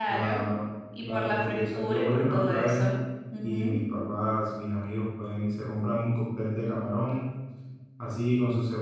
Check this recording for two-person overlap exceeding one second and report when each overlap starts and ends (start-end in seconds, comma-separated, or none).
1.0-3.0